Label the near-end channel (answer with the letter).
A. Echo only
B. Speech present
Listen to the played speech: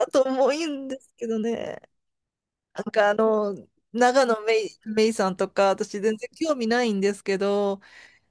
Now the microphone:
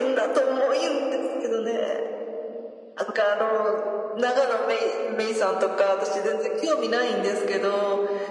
A